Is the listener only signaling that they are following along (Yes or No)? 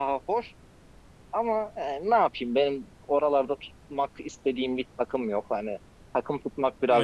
No